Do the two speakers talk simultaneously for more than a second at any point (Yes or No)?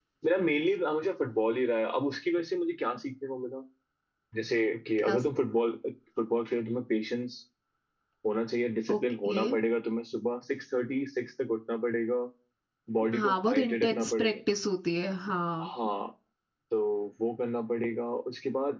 Yes